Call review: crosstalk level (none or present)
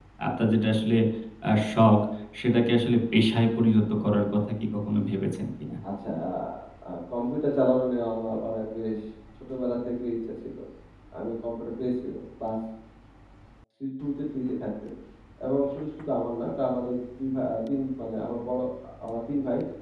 none